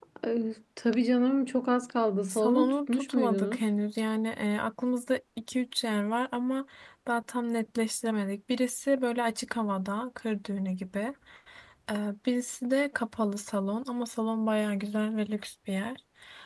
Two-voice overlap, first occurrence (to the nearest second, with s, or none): 2 s